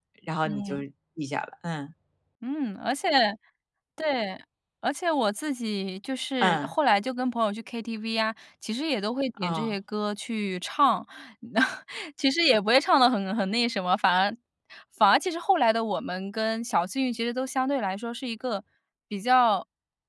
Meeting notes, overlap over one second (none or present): none